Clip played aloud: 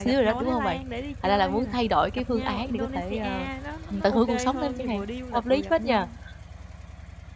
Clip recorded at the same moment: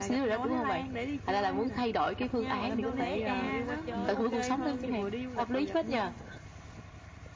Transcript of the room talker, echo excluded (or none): gọi là, mua vé cho người yêu qua chơi, ừm.